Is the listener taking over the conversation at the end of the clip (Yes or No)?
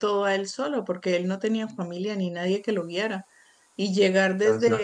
No